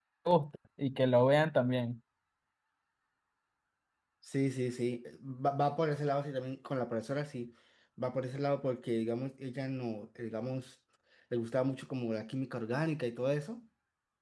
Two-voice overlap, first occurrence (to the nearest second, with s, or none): none